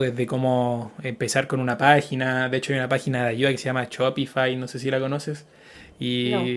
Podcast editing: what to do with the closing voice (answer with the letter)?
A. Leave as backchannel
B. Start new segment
A